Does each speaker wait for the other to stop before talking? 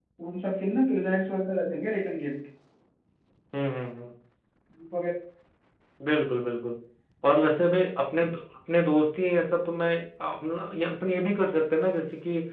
Yes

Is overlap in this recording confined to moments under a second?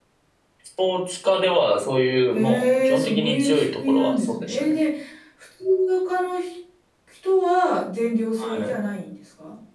No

